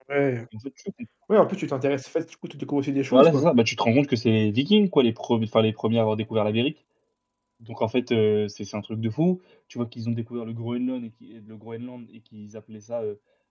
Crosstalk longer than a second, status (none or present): none